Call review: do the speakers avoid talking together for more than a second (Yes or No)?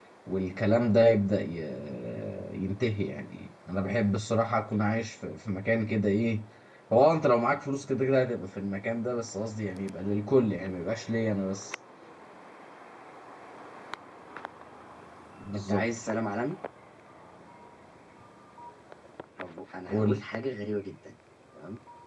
Yes